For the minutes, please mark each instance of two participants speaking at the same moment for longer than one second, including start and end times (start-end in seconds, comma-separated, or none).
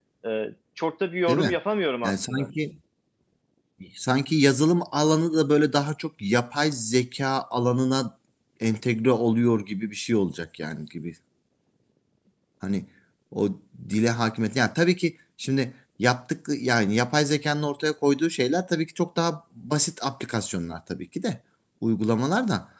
none